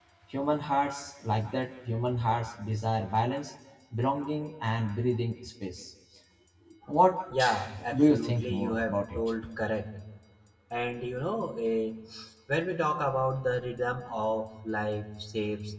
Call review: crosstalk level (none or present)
present